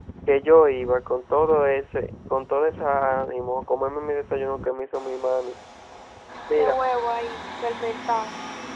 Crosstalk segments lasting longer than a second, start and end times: none

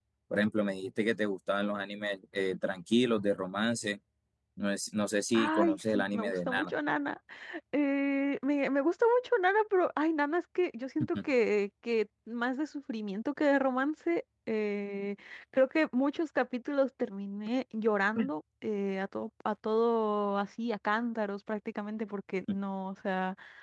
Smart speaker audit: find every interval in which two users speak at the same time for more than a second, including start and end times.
5.3-6.7

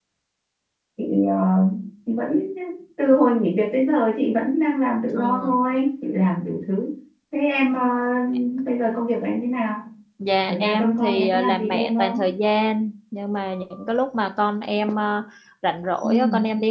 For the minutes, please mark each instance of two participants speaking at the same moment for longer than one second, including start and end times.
10.5-12.2

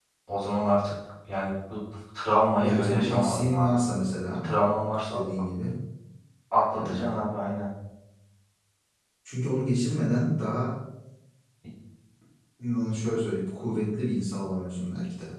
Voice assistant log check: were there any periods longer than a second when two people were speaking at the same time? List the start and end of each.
2.6-3.8

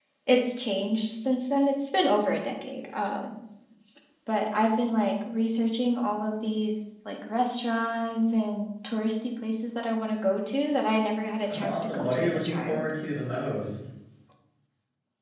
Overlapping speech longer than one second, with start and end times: 11.5-12.9

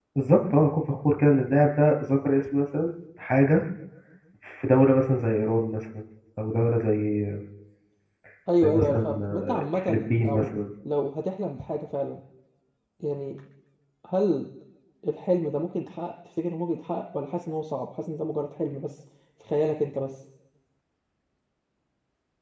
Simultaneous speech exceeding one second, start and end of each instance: 8.6-10.5

